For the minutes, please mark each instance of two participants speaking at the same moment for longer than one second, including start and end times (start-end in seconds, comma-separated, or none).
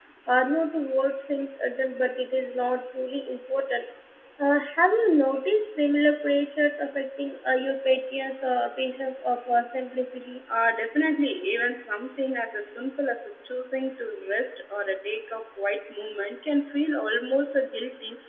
none